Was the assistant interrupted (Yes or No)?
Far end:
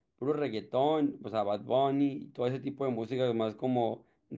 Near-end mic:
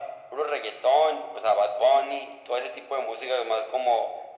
No